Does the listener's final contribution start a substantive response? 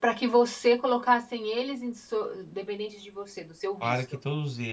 Yes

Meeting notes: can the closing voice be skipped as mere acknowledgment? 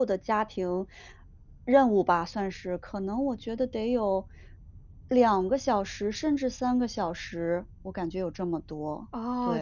No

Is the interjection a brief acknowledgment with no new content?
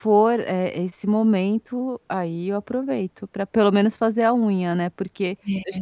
Yes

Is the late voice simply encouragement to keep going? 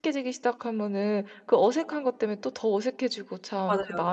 Yes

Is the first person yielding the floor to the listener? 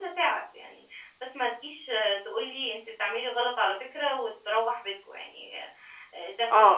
Yes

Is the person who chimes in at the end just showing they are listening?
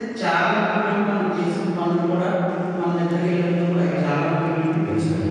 Yes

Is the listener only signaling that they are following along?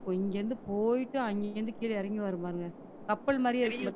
No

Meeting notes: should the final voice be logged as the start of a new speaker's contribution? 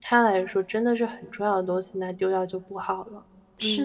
Yes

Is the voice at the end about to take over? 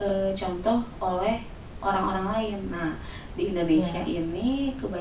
No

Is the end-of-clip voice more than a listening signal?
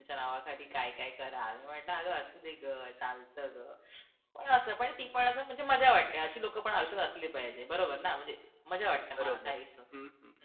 Yes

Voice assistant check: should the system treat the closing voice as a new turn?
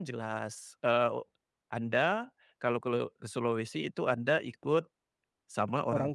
No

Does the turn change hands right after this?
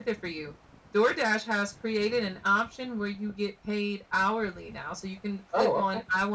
No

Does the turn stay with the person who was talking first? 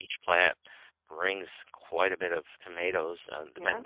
Yes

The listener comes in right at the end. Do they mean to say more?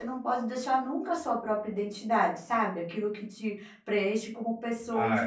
Yes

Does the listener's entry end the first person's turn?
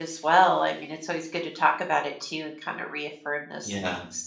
No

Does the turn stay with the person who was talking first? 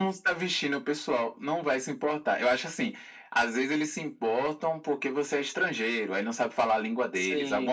Yes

